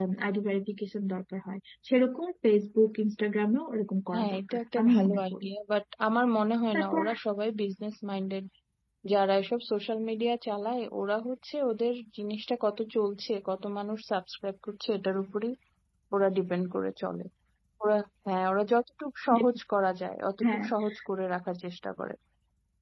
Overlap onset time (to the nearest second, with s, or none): 4 s